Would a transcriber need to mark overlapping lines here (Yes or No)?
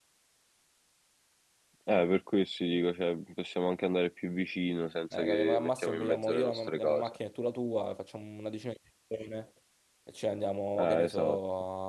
Yes